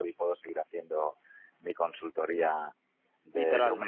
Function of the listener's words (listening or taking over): listening